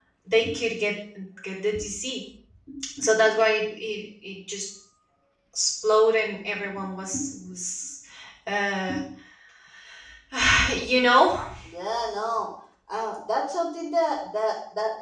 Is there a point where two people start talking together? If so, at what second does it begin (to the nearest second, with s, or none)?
none